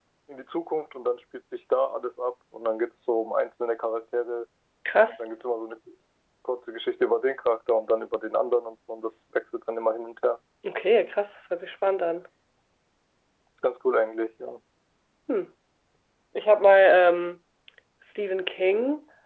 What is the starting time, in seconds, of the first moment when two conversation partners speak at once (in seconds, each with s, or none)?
none